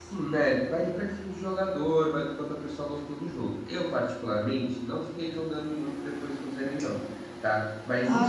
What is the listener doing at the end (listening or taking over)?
taking over